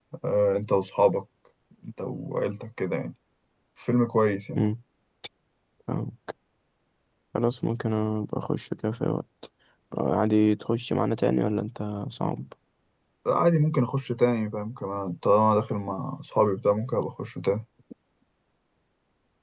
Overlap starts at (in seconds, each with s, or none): none